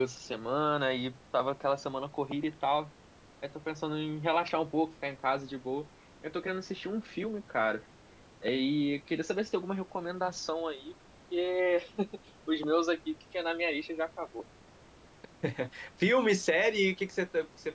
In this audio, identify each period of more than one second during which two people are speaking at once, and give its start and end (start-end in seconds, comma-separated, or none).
none